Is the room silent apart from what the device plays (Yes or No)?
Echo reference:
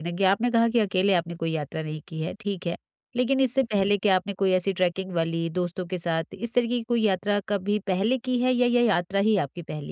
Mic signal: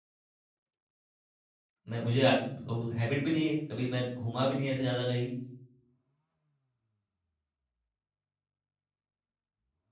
No